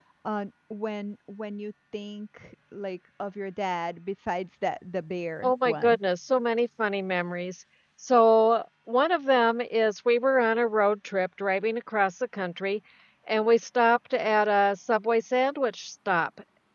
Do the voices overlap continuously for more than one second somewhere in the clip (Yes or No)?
No